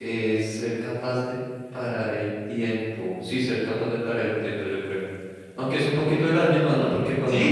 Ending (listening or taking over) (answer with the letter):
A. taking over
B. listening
A